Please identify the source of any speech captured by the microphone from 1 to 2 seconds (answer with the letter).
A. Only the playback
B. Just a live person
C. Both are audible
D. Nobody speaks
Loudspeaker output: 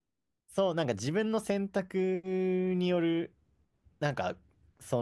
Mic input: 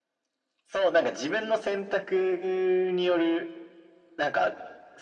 A